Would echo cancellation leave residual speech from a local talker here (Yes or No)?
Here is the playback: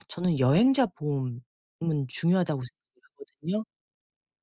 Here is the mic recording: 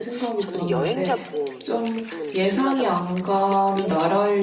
Yes